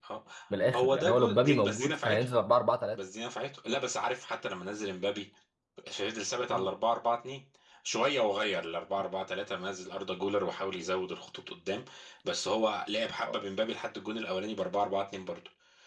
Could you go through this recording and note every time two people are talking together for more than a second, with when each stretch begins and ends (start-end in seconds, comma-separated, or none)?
0.7-2.3